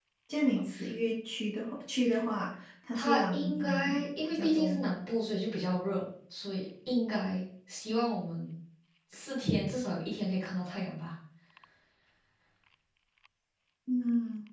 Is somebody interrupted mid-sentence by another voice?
Yes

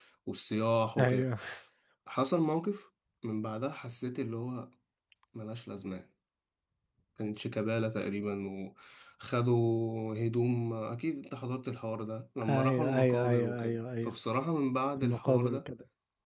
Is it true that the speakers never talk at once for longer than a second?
No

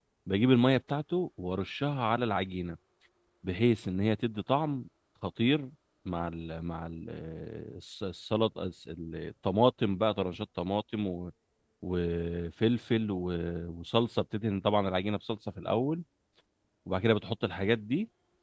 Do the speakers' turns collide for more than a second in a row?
No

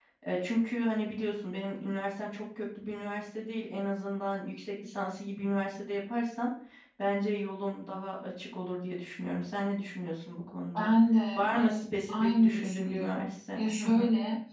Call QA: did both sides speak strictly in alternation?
No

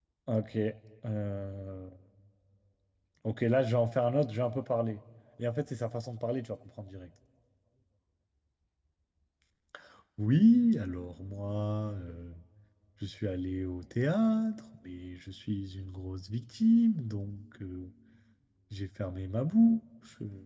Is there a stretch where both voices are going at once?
No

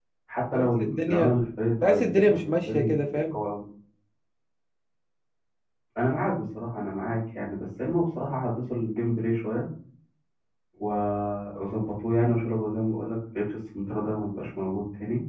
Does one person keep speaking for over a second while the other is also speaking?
Yes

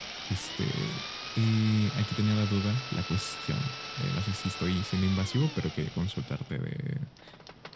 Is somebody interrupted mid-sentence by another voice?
No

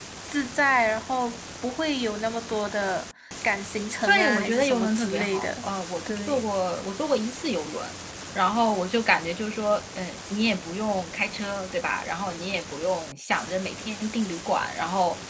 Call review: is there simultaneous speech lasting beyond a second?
Yes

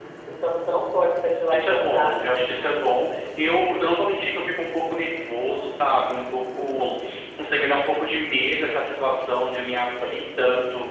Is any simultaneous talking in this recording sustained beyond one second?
Yes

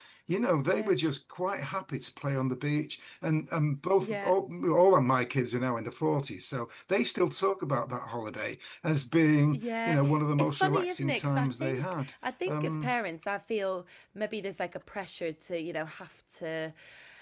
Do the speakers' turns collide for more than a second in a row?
Yes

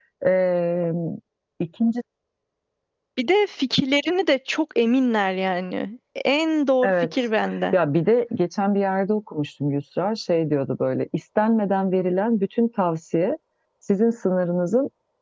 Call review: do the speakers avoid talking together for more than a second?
Yes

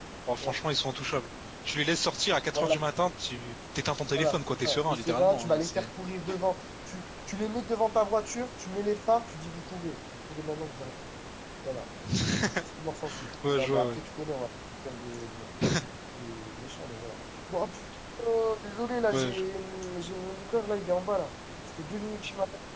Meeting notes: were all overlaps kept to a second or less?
No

